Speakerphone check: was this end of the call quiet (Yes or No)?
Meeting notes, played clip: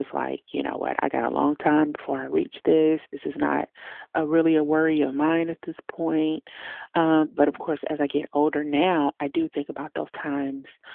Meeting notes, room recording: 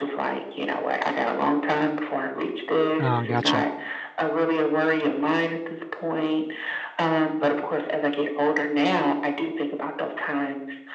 No